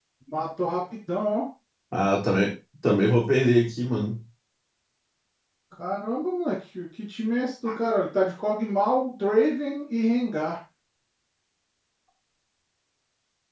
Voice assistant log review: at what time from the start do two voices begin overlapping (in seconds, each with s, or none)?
none